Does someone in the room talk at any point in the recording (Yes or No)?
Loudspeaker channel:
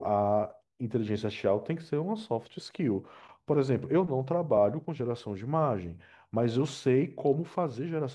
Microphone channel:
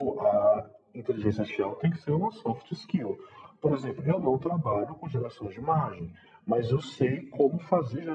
No